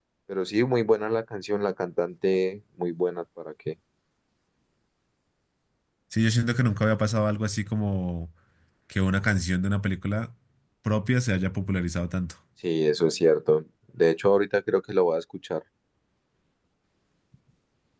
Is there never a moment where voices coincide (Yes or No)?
Yes